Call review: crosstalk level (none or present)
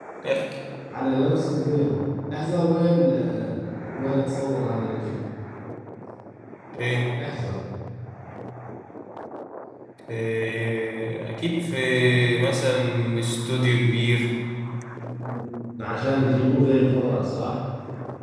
none